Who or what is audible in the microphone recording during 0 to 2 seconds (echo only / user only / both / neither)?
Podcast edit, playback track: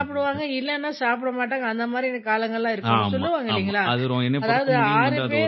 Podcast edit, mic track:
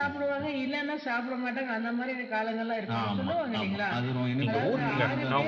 echo only